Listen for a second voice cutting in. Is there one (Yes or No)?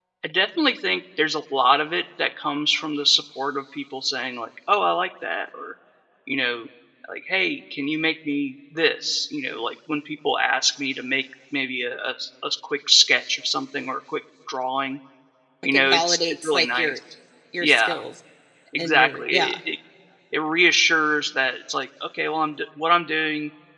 Yes